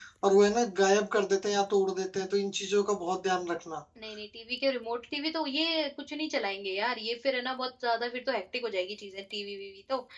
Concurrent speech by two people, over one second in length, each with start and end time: none

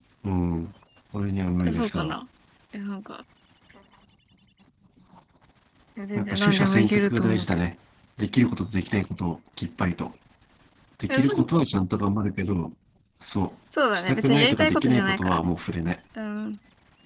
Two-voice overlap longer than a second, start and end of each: 6.2-7.5, 13.9-15.5

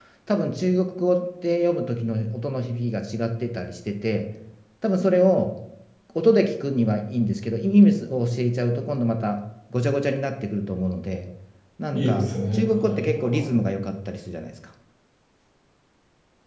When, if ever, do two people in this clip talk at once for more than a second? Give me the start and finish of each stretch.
11.9-13.4

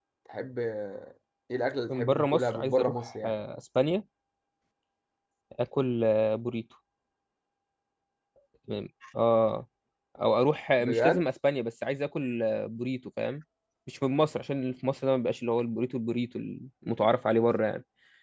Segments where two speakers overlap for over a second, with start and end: 1.9-3.3

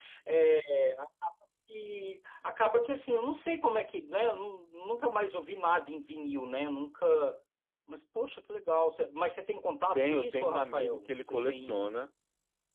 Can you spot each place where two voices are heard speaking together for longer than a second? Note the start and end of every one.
9.9-11.9

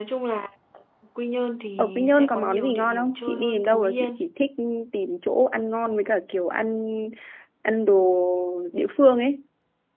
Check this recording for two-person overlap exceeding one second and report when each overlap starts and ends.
1.8-4.3

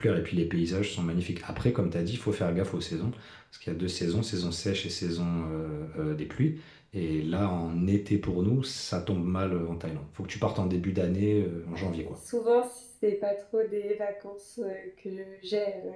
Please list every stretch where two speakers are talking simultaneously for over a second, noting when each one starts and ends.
none

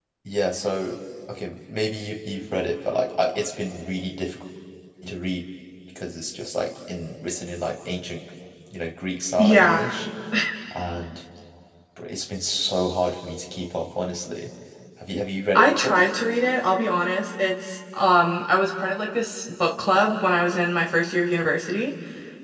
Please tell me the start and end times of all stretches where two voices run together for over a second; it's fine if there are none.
none

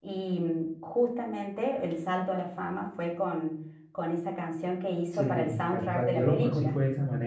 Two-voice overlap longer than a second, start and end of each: 5.1-6.8

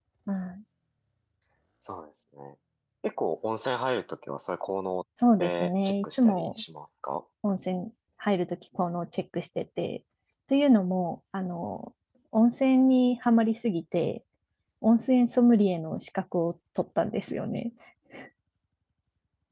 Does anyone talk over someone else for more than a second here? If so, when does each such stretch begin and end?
5.4-6.6

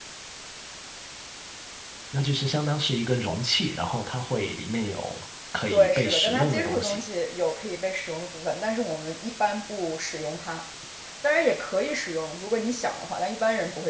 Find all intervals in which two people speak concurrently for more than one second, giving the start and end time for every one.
5.7-7.0

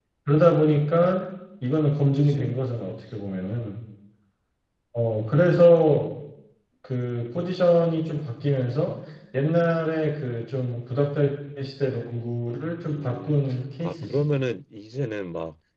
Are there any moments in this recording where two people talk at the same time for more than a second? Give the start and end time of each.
12.8-14.3

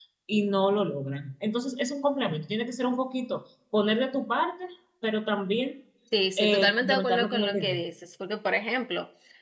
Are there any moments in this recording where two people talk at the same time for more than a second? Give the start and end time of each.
6.4-7.8

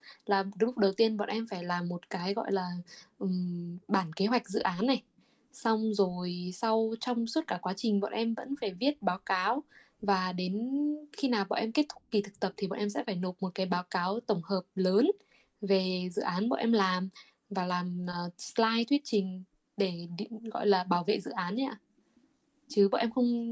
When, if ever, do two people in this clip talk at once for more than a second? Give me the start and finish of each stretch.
none

